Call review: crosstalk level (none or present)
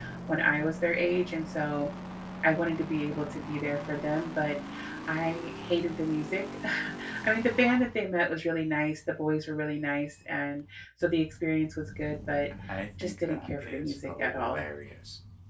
present